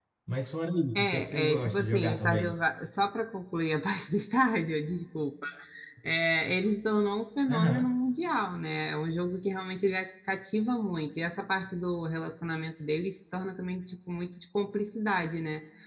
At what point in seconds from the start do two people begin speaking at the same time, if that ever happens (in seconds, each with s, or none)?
0.9 s